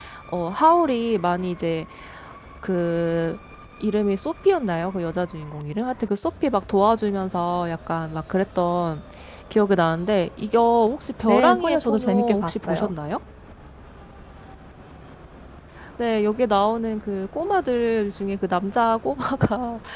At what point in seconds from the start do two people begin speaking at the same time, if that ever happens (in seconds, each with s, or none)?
11.3 s